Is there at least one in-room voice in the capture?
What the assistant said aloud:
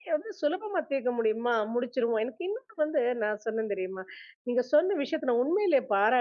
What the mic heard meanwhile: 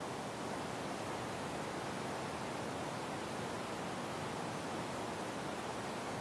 No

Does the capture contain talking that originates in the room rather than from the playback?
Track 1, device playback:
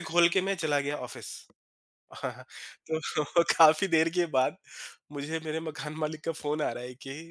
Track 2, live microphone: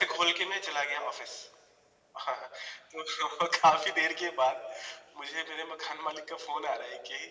No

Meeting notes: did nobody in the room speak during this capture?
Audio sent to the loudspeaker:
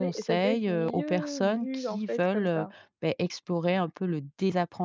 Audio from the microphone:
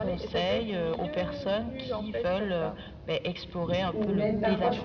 No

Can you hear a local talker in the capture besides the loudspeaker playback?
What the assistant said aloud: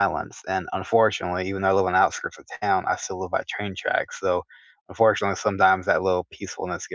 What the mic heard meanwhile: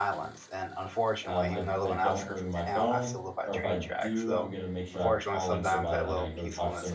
Yes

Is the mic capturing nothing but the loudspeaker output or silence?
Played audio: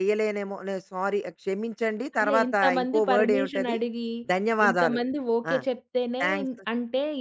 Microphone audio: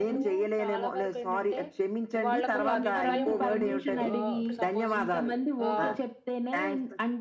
No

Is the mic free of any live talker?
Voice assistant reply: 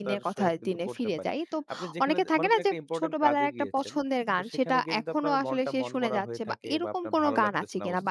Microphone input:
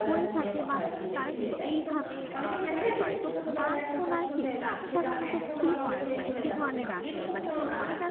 No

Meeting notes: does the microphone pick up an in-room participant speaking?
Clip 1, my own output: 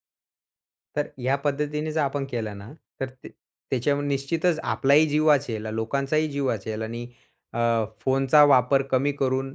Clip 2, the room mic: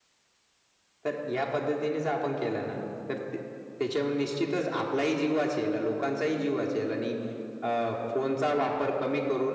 No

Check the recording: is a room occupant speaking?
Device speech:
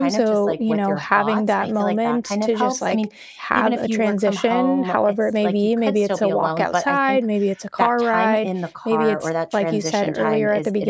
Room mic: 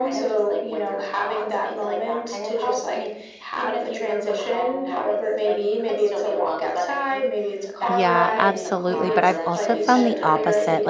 Yes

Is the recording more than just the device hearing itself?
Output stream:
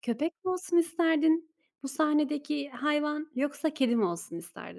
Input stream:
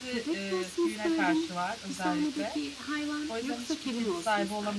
Yes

